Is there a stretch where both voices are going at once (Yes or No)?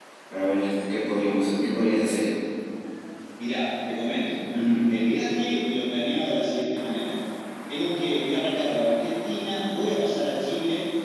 No